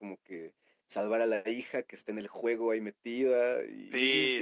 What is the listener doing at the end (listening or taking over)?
taking over